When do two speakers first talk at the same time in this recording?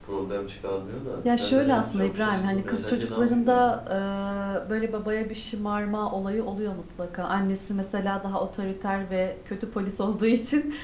1.2 s

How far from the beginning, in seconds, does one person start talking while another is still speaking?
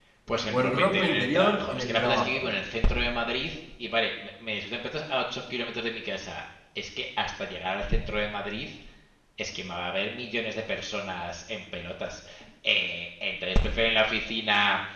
0.5 s

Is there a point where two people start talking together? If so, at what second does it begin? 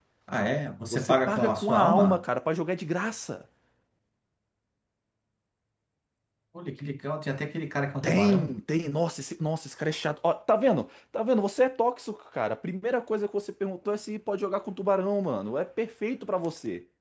0.9 s

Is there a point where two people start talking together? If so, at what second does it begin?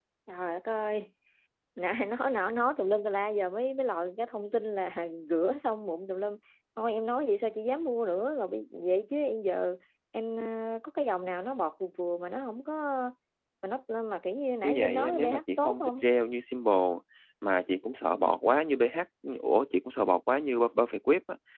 14.6 s

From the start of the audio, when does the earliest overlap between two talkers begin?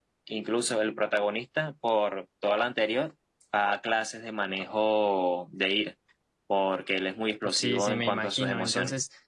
7.4 s

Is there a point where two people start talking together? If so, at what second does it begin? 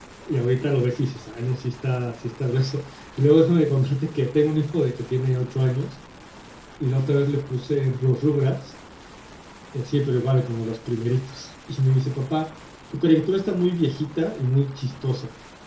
none

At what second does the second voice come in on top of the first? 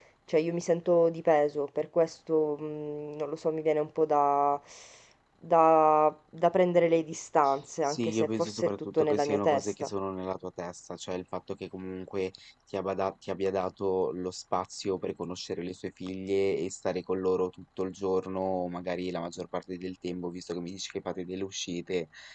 7.8 s

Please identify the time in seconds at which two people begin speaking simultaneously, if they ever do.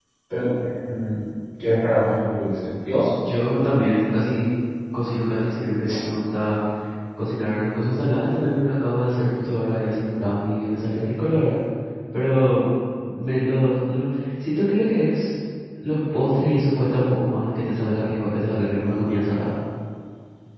none

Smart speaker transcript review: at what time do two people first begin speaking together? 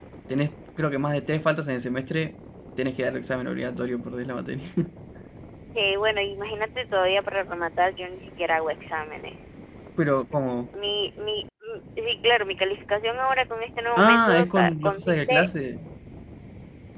14.0 s

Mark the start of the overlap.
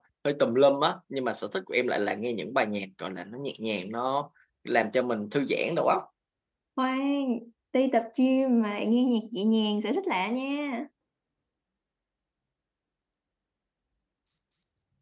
none

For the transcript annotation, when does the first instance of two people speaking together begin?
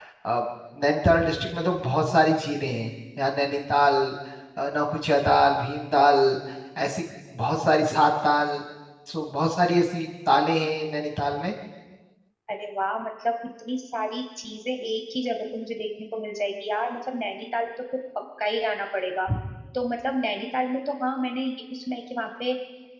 none

